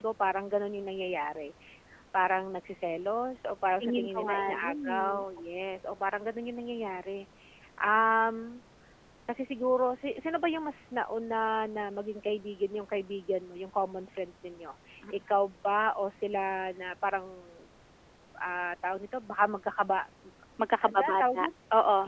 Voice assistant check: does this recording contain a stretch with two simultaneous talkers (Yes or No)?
Yes